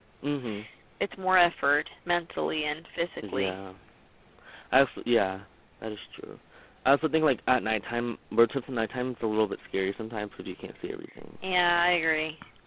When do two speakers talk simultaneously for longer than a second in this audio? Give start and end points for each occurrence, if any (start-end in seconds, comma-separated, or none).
none